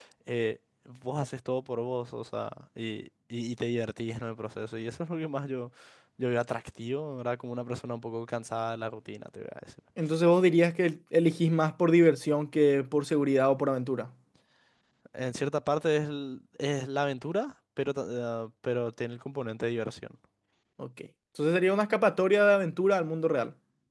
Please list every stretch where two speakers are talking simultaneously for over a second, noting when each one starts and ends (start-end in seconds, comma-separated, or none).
none